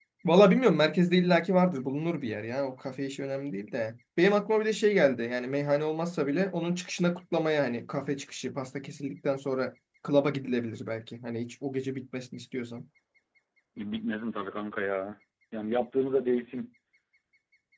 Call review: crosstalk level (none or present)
none